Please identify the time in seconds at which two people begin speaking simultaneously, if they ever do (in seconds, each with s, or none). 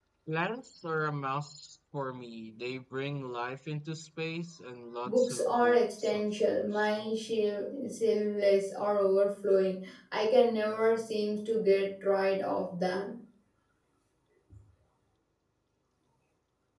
5.0 s